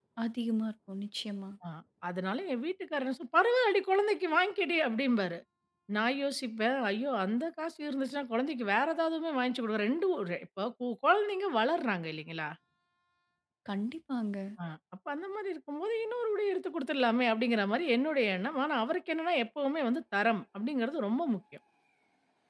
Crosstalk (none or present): none